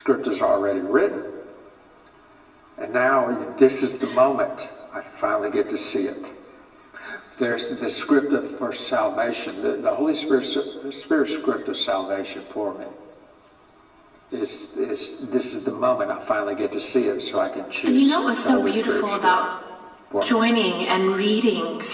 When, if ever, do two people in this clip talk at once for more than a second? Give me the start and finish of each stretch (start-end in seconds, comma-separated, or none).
18.0-19.3